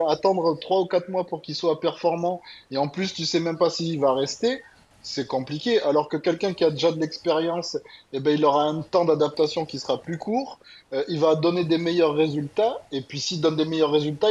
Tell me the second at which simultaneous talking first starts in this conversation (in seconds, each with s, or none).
none